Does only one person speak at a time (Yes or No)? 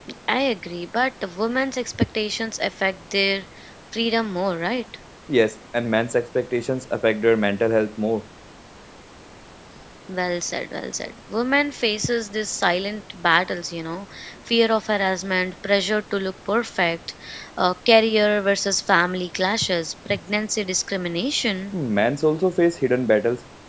Yes